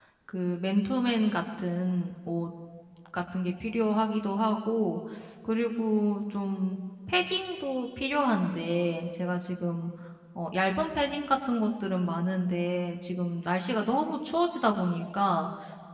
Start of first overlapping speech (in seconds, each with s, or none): none